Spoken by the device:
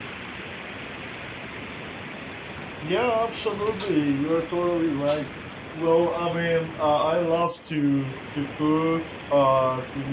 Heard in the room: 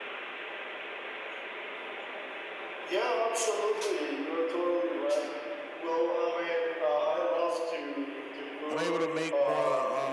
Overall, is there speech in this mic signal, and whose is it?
both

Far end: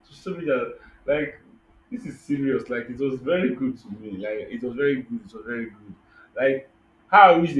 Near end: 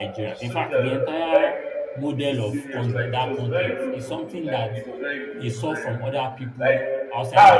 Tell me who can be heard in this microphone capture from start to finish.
both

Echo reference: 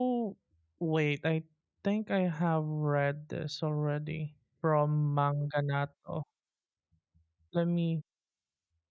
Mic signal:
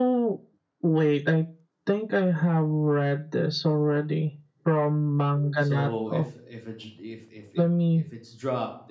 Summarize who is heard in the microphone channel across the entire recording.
both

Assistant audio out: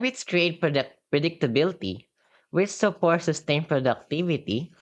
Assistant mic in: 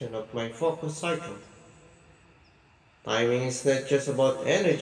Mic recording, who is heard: user only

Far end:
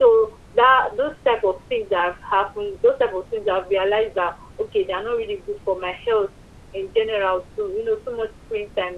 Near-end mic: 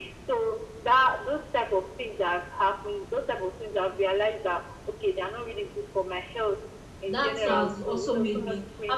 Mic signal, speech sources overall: both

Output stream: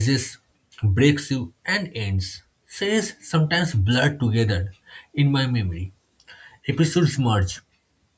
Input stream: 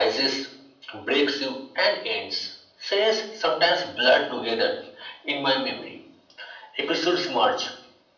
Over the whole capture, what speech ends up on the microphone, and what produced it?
echo only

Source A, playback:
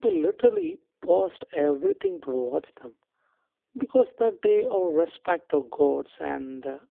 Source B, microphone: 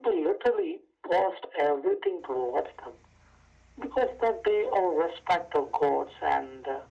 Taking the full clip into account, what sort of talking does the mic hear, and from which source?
echo only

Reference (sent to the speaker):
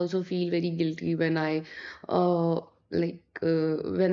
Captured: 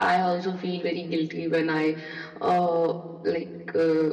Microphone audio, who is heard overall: echo only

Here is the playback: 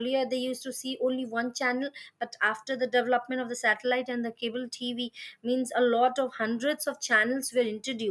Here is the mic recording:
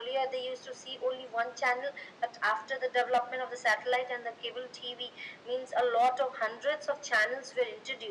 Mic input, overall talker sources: echo only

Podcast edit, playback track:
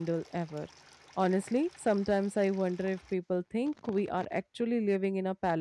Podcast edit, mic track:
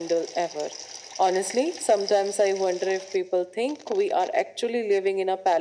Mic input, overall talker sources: echo only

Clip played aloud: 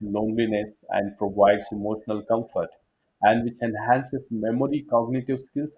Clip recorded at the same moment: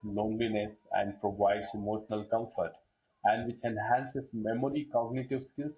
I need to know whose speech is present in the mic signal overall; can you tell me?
echo only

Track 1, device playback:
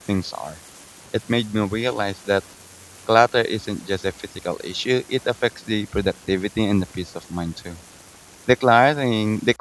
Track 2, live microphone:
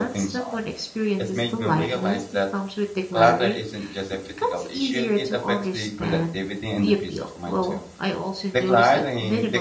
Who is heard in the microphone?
both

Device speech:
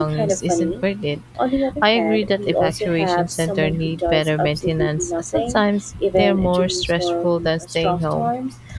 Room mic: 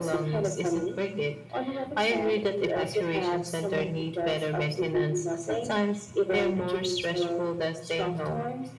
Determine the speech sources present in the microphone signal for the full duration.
echo only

